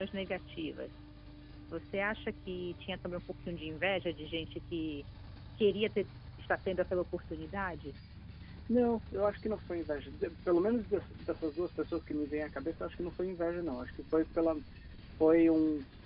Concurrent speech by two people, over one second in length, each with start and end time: none

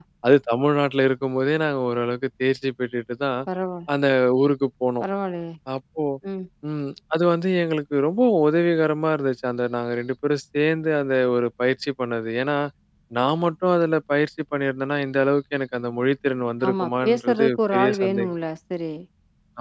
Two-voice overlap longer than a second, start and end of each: 16.7-18.3

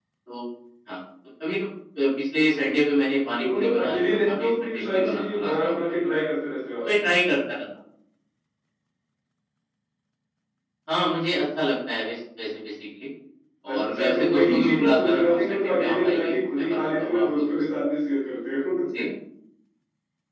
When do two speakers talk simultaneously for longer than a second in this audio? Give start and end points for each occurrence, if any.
3.4-5.7, 13.7-17.6

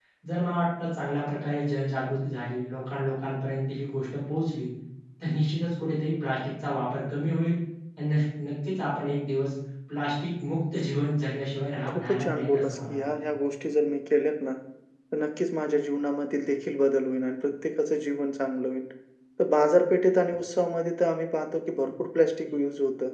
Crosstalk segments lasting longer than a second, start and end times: 11.9-13.3

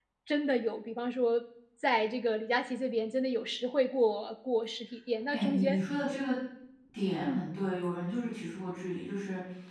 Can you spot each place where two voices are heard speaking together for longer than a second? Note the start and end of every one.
none

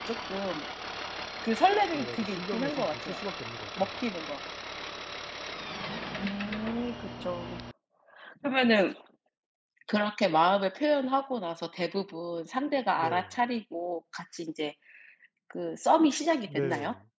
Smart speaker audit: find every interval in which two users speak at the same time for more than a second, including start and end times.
1.9-3.2

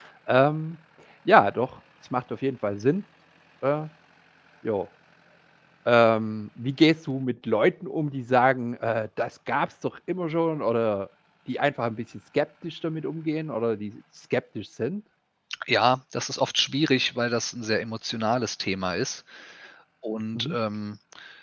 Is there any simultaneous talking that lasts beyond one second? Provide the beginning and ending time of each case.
none

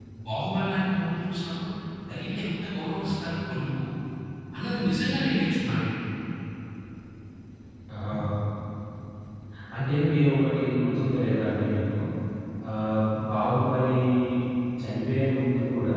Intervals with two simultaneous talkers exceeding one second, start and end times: none

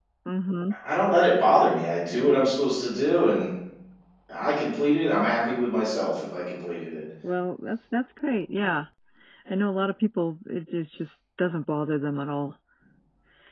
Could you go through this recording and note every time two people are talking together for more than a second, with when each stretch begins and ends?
none

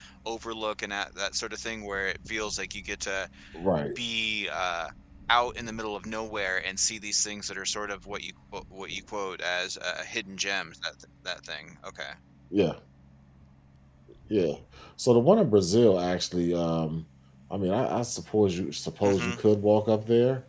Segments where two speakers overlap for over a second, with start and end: none

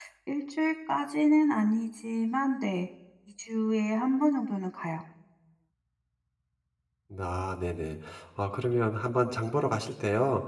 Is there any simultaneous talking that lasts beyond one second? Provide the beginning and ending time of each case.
none

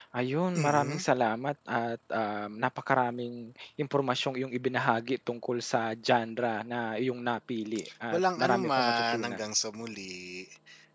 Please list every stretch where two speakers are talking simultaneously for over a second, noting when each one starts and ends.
8.1-9.4

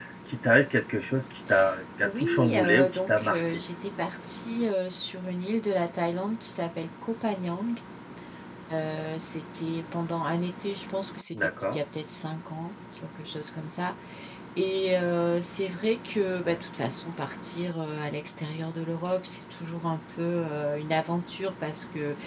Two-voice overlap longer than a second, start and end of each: 2.0-3.4

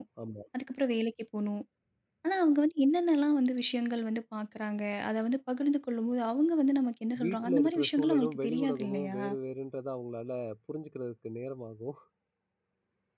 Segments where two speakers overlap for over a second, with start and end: 7.2-9.2

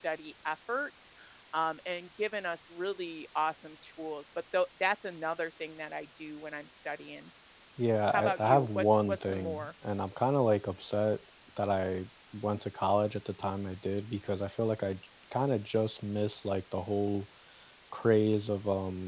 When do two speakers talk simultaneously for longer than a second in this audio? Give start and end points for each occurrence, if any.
8.1-9.7

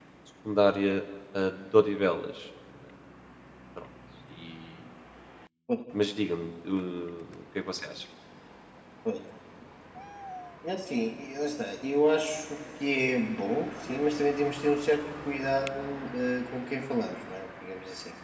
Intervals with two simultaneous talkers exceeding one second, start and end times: none

